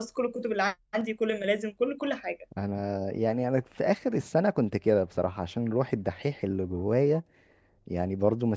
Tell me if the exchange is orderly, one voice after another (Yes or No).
Yes